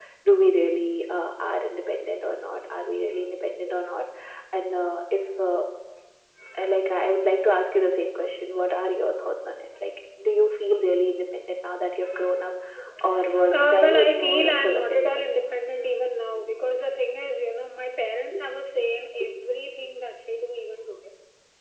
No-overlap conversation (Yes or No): No